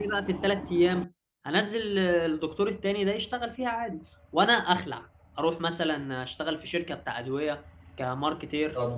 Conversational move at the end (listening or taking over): taking over